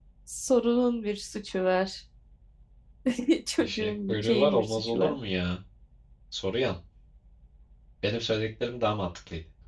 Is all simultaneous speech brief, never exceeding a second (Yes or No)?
No